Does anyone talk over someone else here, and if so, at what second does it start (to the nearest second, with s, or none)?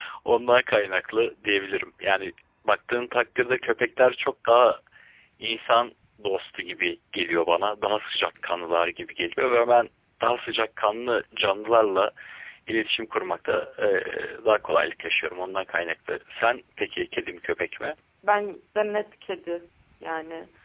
none